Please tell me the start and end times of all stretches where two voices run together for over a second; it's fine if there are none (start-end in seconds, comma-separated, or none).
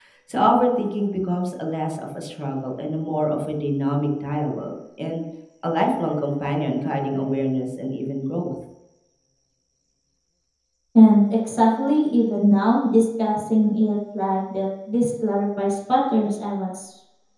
none